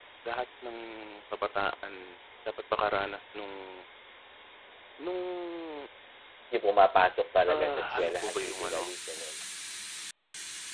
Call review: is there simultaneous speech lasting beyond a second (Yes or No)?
Yes